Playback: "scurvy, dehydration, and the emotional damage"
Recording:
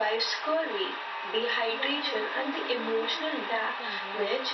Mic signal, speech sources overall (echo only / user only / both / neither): both